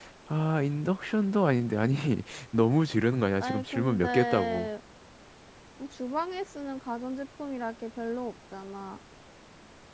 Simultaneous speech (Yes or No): Yes